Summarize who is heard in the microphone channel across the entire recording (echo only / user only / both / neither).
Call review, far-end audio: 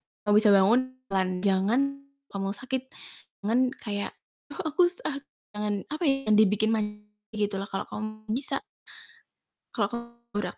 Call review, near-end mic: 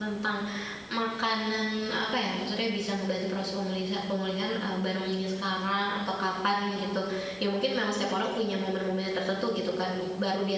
user only